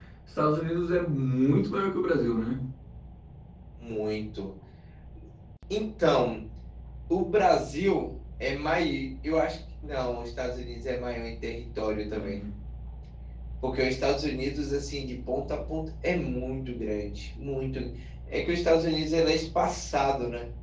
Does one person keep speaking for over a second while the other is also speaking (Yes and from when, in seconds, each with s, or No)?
No